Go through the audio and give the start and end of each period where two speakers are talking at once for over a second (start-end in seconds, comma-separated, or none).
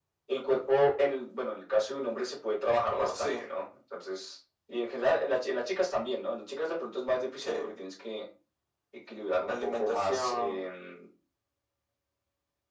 9.5-10.7